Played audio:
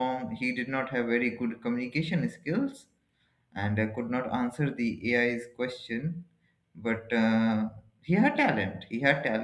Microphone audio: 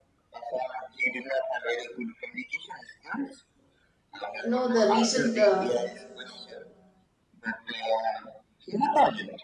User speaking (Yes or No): Yes